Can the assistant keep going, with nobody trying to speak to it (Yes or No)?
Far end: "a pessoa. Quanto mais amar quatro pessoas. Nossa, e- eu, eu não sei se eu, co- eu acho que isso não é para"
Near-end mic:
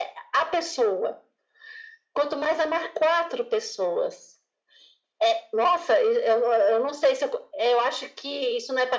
Yes